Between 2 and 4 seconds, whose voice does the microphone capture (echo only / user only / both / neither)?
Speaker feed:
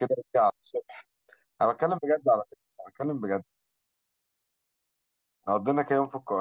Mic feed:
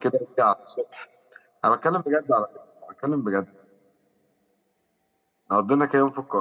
echo only